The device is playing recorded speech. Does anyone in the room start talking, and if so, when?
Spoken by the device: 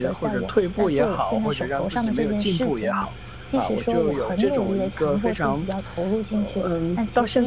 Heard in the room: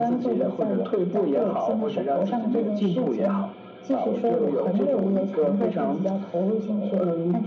none

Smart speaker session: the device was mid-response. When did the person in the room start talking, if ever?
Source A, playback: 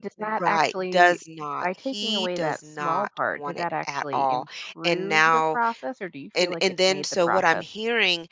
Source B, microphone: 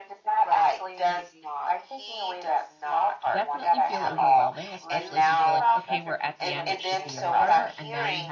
3.3 s

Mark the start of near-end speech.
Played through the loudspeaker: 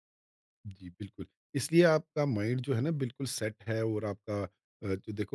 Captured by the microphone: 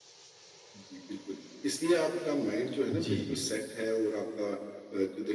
2.9 s

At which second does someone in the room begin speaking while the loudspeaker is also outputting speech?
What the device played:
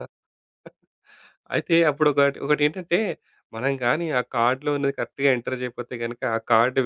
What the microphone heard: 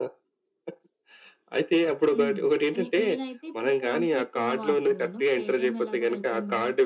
2.1 s

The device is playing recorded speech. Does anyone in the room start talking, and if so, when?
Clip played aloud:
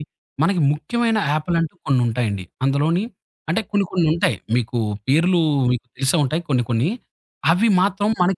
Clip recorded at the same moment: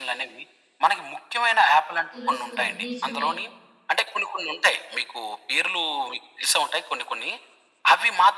2.1 s

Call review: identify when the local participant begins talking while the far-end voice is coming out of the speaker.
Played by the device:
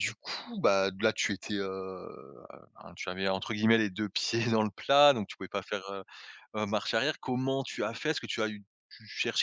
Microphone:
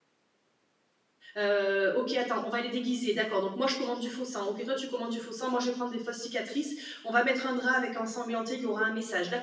1.4 s

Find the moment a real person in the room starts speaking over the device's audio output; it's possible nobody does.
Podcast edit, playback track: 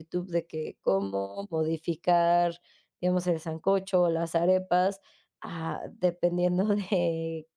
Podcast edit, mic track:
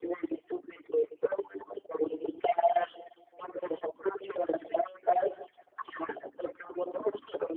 none

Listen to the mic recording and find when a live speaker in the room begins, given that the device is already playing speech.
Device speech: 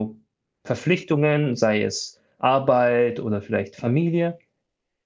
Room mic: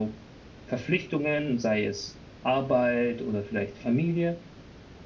none

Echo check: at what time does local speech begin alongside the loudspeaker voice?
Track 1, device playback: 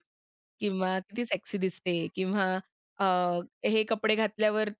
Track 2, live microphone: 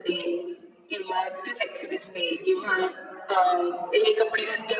none

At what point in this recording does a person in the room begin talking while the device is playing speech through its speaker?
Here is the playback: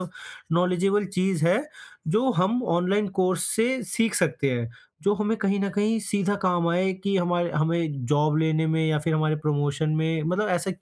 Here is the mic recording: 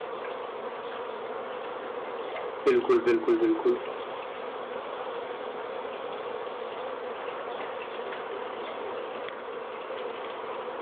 2.6 s

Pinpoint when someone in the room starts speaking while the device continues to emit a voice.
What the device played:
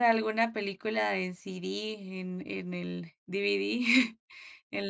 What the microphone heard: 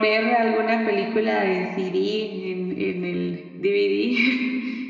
none

